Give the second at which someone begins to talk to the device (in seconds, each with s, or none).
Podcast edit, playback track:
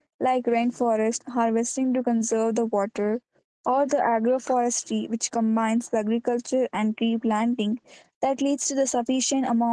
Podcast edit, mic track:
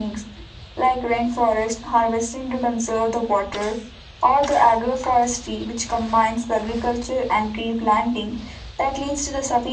none